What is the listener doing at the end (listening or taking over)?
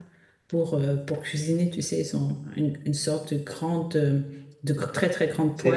taking over